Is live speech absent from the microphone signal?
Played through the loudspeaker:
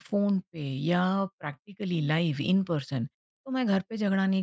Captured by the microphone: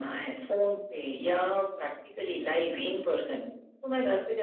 Yes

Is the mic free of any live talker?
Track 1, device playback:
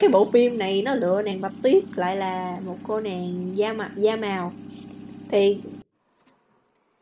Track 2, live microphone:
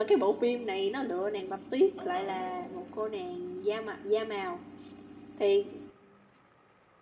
No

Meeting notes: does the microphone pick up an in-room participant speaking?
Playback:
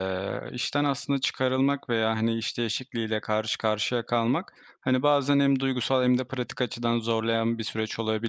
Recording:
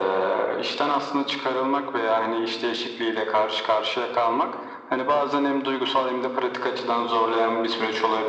No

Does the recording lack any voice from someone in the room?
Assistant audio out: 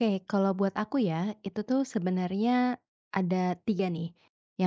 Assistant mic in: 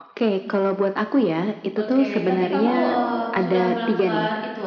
No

